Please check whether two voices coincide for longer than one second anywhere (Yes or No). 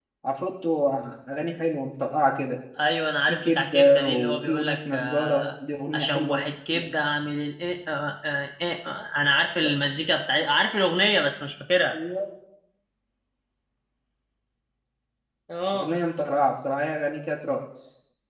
Yes